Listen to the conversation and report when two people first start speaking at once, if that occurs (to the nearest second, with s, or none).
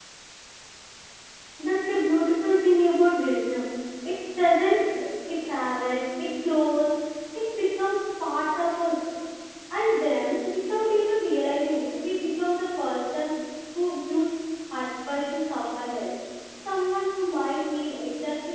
none